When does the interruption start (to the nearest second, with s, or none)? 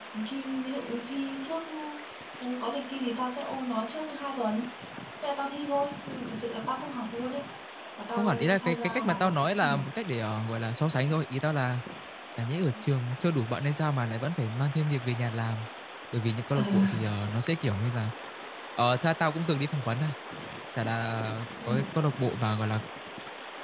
8 s